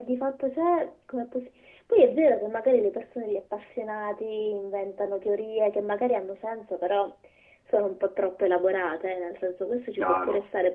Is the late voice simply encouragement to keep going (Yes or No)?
Yes